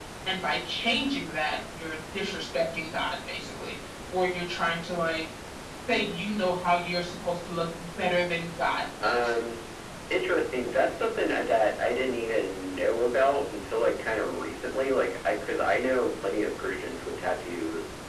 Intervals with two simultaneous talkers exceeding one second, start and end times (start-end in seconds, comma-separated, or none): none